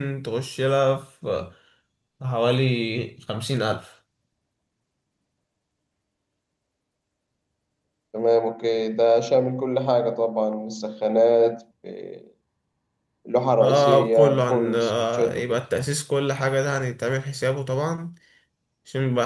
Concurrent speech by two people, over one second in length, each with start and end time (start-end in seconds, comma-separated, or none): 13.6-15.6